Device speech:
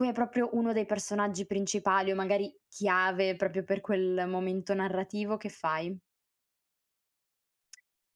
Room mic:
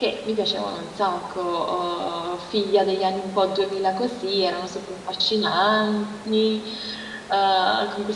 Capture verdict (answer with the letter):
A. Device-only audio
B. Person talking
B